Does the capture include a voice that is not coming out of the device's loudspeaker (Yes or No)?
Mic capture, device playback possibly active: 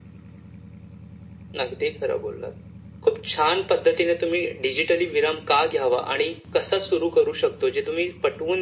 No